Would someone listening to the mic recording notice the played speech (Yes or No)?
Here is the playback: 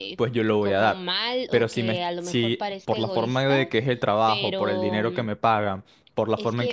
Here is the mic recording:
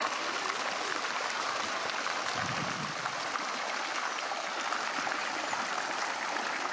No